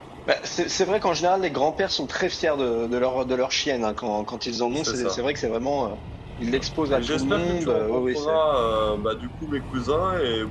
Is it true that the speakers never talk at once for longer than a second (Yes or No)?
No